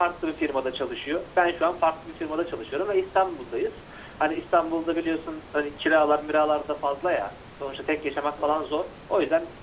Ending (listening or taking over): listening